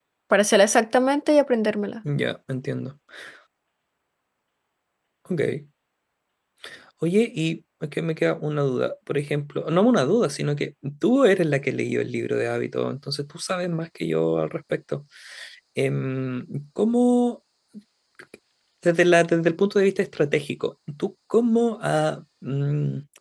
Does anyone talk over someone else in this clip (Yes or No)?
No